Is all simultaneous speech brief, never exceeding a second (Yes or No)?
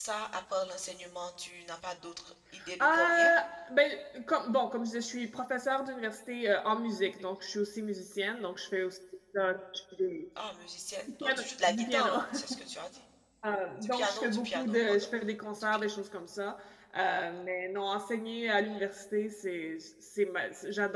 No